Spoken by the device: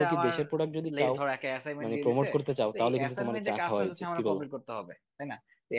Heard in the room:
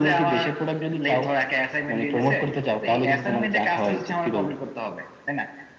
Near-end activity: none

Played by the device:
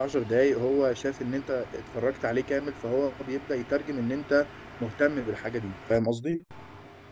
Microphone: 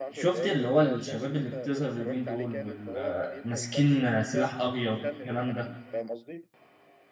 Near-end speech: present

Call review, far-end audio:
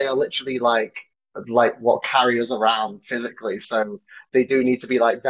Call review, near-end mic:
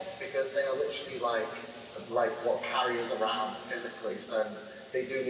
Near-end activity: none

